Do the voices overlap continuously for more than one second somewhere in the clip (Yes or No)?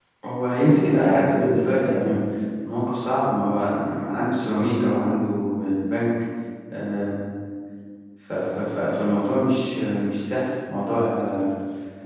Yes